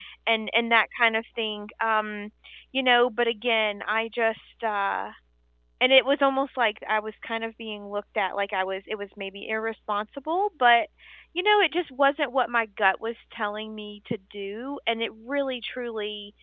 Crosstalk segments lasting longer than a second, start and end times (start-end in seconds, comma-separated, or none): none